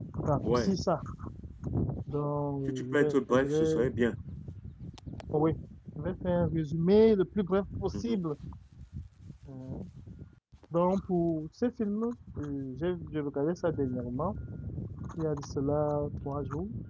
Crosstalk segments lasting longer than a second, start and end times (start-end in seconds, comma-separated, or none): 2.7-3.9